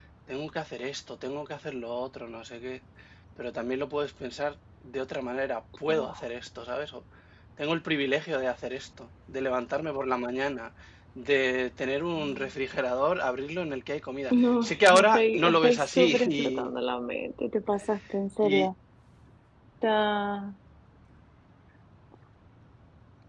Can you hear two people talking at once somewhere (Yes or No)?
Yes